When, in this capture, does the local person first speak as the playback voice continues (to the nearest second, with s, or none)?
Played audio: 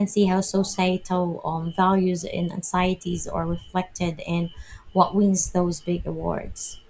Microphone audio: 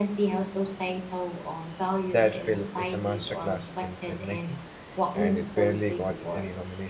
2 s